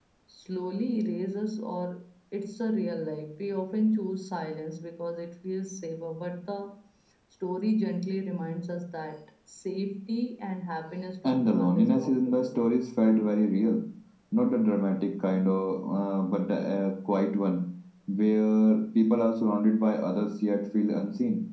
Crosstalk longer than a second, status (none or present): present